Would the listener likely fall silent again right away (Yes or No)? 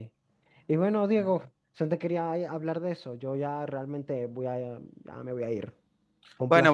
No